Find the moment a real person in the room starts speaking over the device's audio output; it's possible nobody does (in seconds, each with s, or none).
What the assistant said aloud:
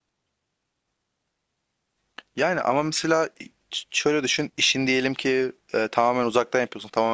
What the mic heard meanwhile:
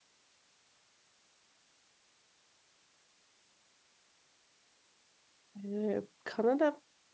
5.6 s